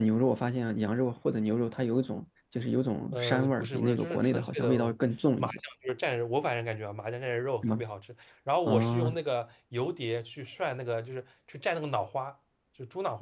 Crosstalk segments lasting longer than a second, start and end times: 3.1-4.7

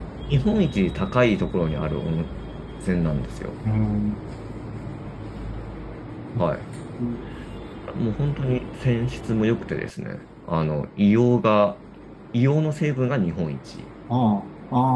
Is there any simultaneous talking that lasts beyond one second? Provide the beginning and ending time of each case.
none

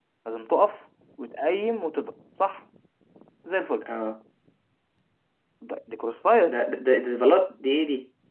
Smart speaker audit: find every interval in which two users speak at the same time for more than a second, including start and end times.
none

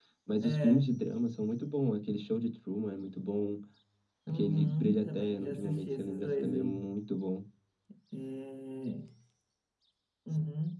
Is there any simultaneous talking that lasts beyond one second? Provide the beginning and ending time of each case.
4.3-6.9

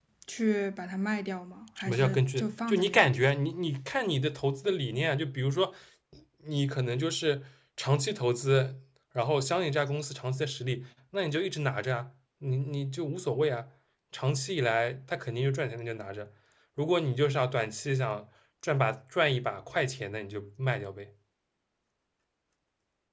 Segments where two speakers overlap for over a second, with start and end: 1.8-3.2

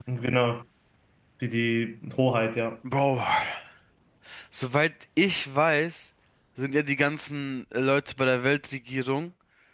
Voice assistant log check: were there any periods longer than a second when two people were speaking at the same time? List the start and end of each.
none

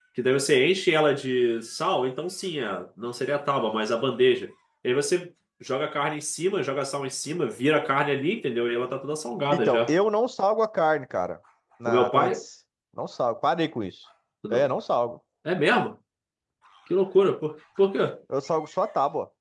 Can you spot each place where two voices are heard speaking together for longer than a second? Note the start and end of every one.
none

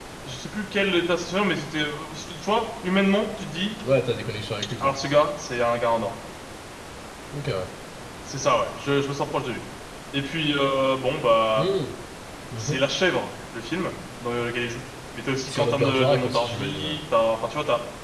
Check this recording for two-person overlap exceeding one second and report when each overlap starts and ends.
15.5-17.0

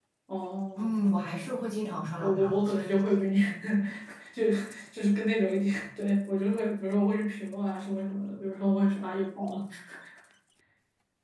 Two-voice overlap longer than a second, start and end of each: 0.8-3.0

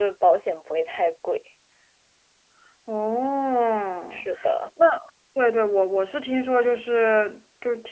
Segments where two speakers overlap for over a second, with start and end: none

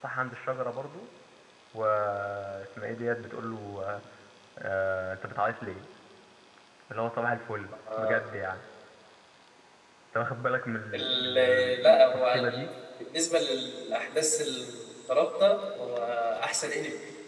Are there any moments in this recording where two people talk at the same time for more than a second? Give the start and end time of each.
10.9-12.6

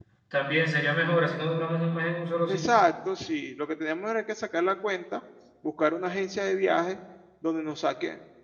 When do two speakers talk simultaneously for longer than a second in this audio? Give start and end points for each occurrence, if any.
none

